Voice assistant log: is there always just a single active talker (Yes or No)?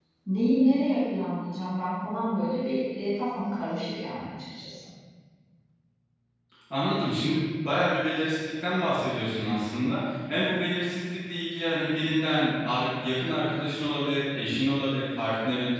Yes